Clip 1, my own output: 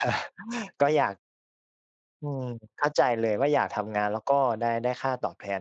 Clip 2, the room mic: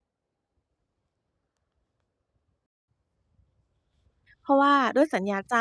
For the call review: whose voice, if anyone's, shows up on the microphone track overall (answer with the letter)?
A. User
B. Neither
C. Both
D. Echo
A